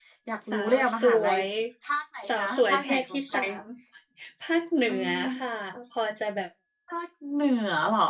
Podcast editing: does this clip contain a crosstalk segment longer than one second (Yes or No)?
Yes